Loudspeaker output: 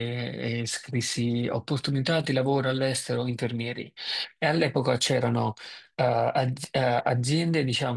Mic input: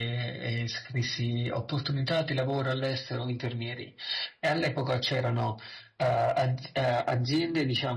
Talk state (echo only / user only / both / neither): echo only